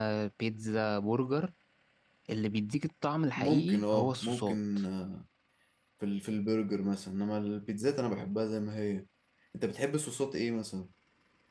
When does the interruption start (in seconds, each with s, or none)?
3.4 s